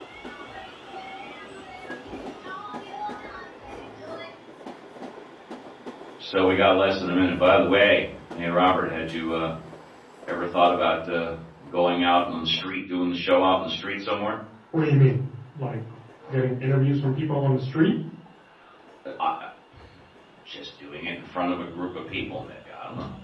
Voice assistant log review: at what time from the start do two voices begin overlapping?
none

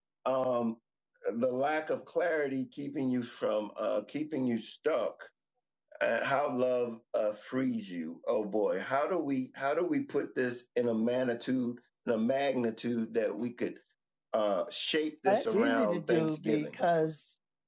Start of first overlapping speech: 15.2 s

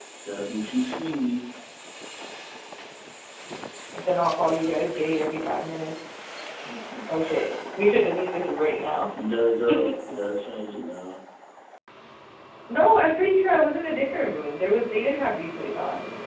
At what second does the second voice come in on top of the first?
none

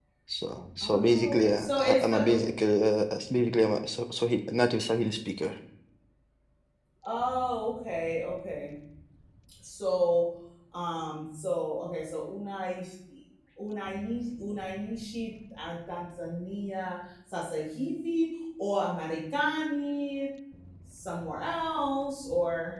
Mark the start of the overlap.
0.8 s

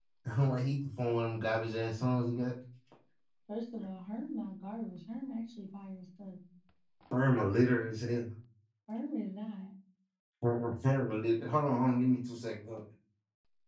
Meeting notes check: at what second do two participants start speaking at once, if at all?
none

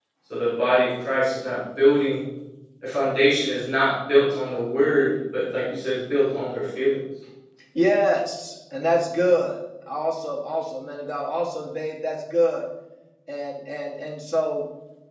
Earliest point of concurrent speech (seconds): none

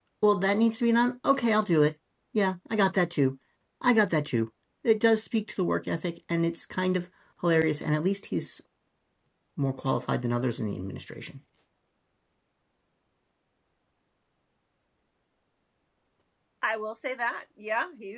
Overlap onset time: none

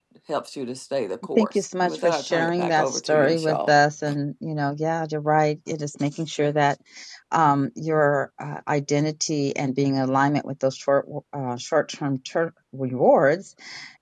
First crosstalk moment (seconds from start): 1.4 s

